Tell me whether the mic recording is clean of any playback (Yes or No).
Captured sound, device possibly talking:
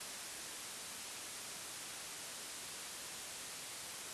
Yes